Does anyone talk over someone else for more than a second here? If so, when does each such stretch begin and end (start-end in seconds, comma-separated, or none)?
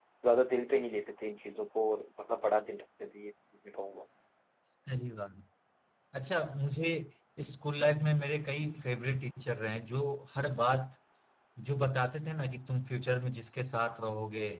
none